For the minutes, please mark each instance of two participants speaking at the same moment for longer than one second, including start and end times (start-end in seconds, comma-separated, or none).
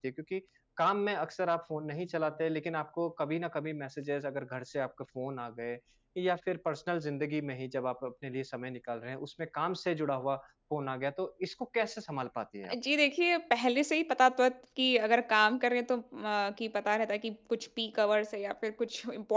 none